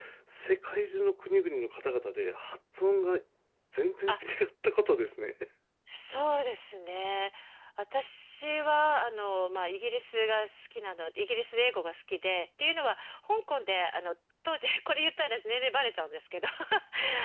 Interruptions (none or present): none